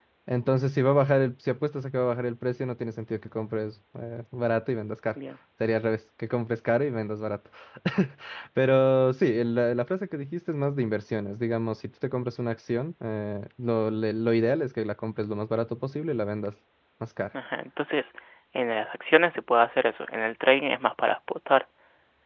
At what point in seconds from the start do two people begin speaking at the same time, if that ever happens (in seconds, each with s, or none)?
none